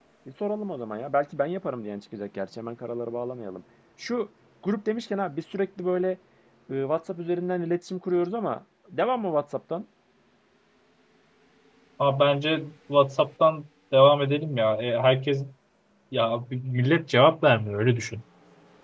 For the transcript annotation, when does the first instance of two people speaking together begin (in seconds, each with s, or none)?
none